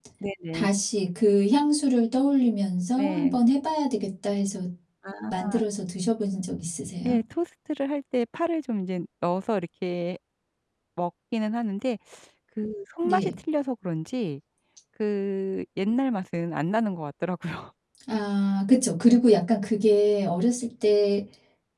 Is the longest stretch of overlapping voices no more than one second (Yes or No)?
Yes